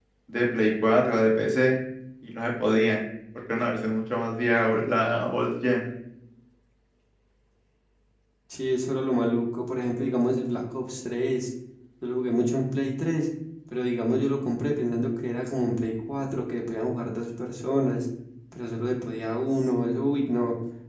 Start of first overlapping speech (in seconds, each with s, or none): none